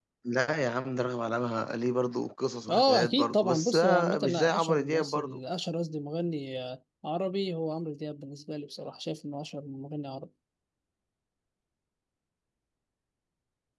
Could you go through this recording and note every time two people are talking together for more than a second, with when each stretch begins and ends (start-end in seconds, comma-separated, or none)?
2.7-5.4